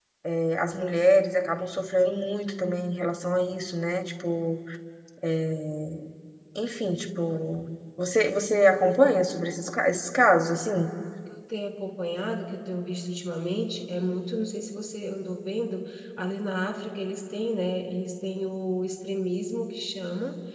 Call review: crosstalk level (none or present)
none